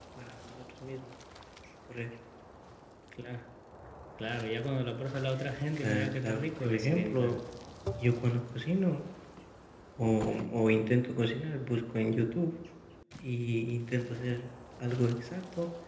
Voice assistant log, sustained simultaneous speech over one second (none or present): present